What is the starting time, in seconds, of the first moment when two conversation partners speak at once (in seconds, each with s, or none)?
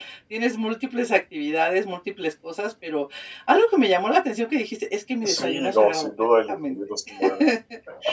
5.2 s